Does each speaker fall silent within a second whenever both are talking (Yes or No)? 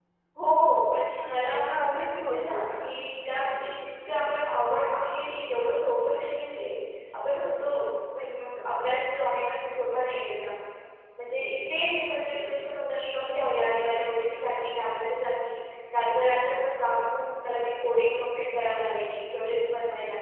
No